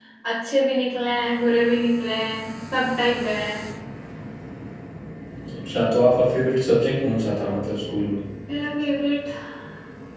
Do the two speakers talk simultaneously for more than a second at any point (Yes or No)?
No